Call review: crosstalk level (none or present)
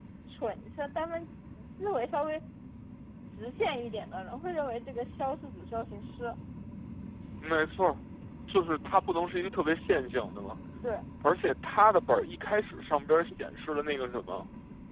none